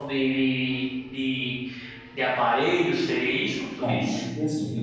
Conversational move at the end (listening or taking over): taking over